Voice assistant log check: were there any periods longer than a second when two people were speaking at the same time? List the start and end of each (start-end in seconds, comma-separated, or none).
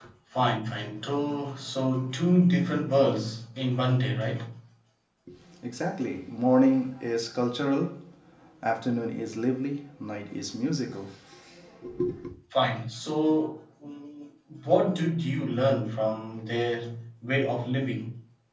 none